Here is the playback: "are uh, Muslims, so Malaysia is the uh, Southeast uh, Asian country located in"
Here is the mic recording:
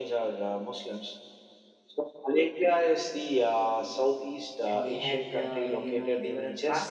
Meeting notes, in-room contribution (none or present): present